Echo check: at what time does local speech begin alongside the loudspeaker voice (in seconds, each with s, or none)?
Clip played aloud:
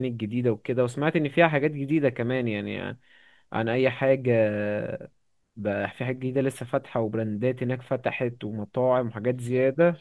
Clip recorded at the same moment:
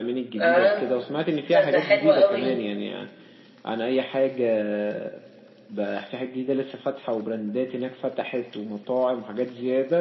0.4 s